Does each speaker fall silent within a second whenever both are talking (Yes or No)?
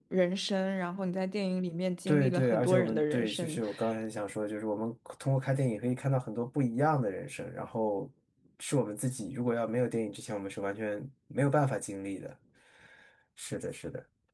No